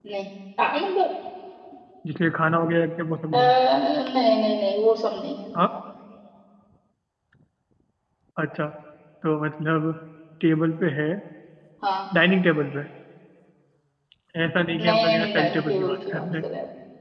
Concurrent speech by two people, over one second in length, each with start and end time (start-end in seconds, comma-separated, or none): 14.8-16.5